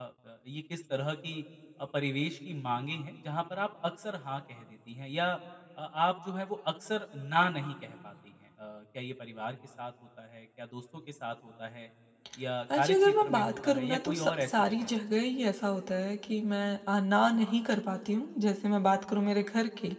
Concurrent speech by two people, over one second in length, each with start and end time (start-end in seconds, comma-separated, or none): 12.8-14.9